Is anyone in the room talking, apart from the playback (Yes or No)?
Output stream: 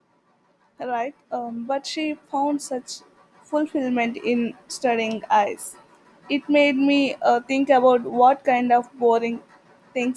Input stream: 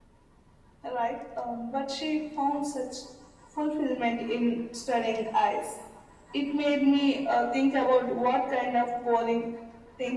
No